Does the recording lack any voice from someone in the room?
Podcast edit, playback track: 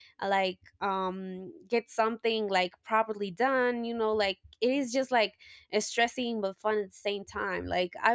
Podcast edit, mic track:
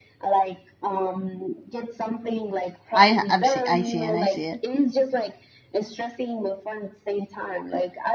No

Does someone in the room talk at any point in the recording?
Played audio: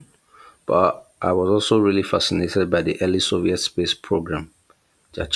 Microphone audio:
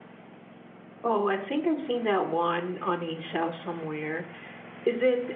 Yes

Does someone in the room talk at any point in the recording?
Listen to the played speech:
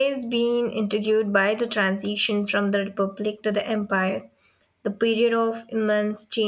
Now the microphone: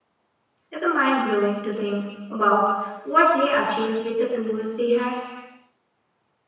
Yes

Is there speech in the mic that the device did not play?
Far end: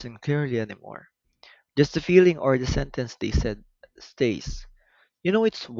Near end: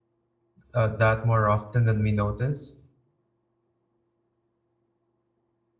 Yes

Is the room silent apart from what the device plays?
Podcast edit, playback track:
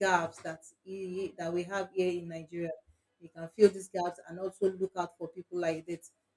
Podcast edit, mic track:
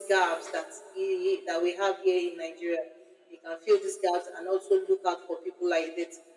Yes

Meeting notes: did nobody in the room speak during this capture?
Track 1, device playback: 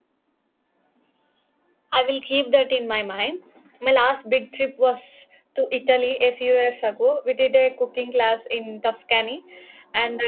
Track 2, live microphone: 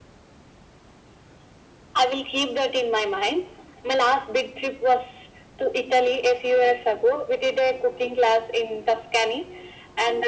Yes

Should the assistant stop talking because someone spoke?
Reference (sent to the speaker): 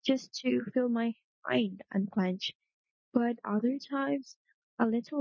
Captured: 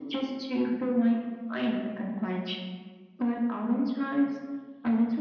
No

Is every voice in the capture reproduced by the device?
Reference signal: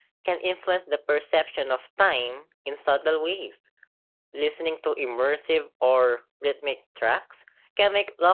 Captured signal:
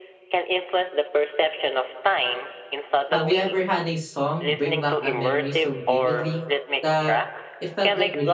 No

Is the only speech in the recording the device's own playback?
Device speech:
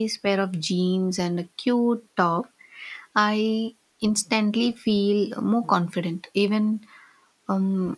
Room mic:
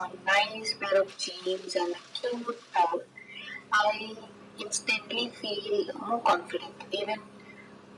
Yes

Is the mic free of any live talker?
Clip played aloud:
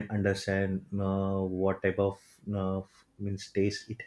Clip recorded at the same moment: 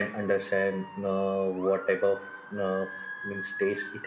Yes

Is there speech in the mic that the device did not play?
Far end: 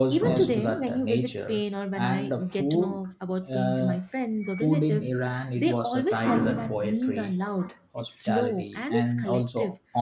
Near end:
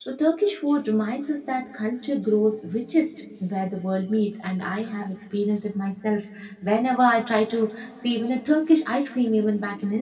Yes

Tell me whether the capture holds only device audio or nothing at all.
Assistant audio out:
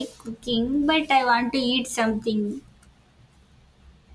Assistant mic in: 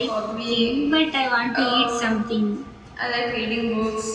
No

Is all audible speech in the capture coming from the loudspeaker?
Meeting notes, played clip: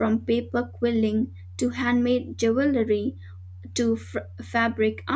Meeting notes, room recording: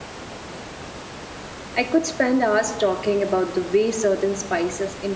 No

